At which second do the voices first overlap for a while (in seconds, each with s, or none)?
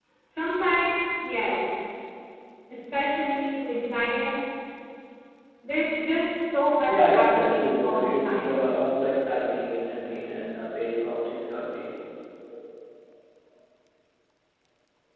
6.9 s